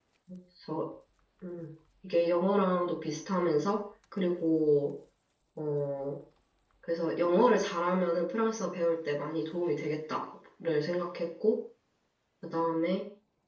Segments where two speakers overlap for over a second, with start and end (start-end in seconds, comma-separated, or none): none